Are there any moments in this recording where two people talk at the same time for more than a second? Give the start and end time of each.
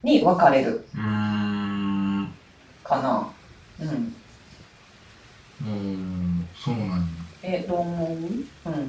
none

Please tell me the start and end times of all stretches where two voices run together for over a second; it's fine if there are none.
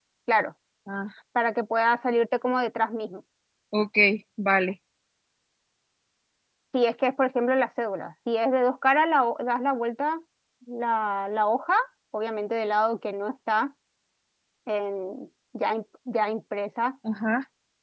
none

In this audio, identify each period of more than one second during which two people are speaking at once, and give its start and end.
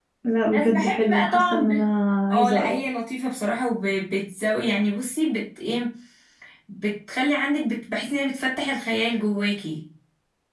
0.5-1.8

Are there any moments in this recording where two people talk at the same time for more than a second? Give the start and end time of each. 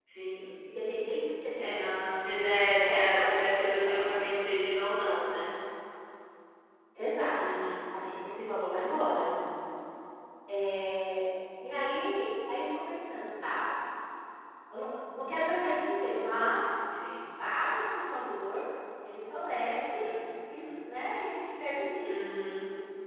2.5-4.2

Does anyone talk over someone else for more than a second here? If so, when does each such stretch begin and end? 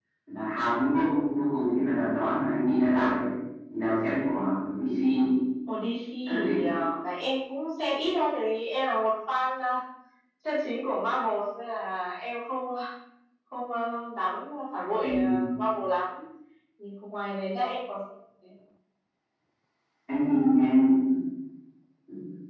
none

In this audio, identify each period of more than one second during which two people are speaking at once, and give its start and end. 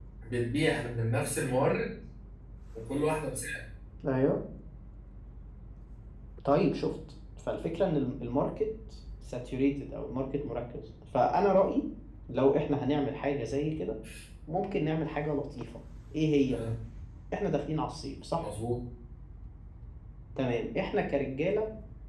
none

